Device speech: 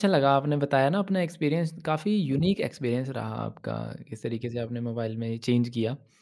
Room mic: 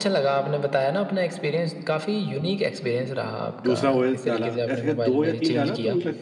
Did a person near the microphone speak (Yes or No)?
Yes